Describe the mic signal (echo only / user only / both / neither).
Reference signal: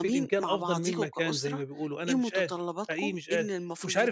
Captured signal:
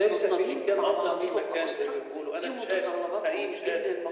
echo only